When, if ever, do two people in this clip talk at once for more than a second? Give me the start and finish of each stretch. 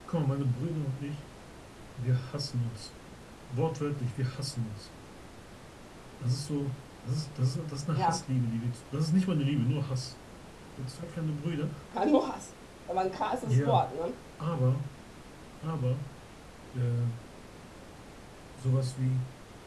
none

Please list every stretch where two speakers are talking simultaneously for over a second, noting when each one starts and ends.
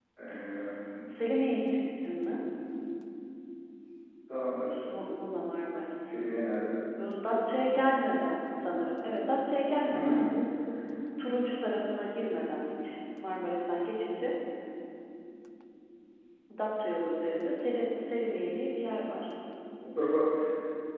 none

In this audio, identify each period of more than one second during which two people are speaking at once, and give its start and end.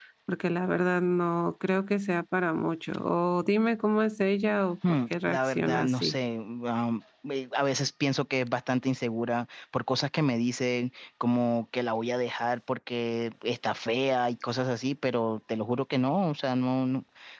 4.9-6.1

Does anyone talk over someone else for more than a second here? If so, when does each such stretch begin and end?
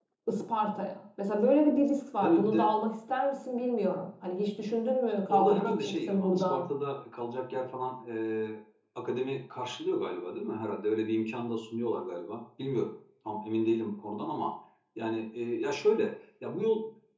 5.3-6.7

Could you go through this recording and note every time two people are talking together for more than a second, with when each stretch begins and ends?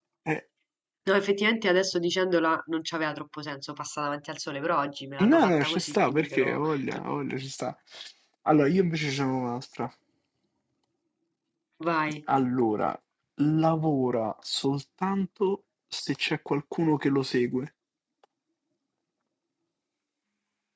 5.2-7.0

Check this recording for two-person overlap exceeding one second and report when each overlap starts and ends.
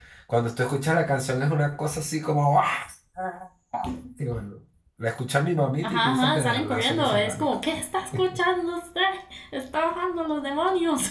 5.8-7.5

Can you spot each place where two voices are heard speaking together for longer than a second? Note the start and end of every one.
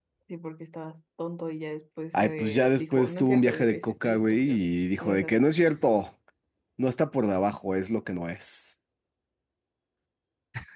2.1-4.6

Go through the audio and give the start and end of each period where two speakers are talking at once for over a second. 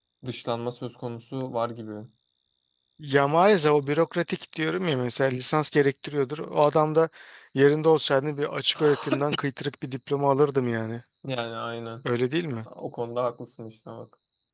none

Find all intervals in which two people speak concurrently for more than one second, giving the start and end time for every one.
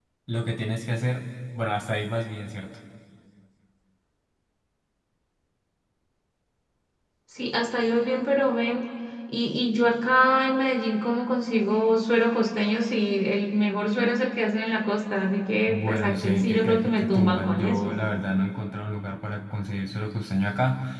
15.7-18.0

